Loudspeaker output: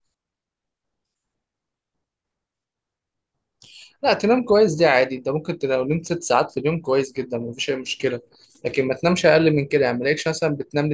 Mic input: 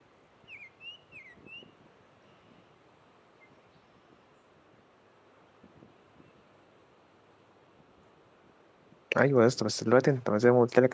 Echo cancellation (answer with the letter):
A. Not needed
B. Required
A